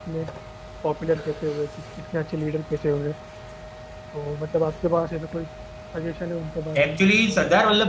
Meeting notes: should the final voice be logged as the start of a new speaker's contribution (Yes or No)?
Yes